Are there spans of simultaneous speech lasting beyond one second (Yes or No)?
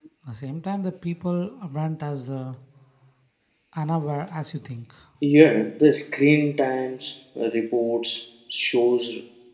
No